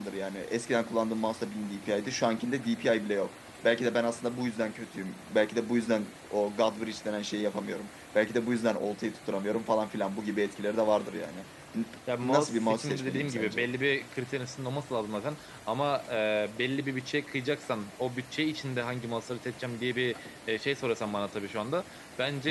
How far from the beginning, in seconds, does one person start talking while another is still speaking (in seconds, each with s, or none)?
12.1 s